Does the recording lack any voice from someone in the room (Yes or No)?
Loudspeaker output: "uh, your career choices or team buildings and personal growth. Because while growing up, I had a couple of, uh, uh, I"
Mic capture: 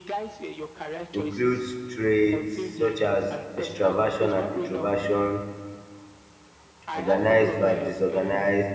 No